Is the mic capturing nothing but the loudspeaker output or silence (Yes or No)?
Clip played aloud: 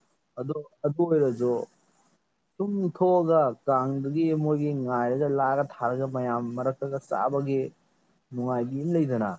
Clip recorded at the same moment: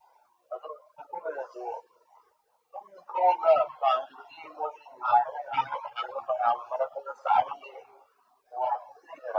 Yes